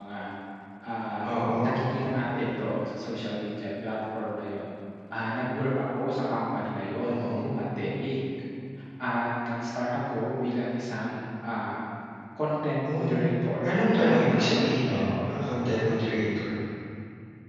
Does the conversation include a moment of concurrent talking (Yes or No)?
Yes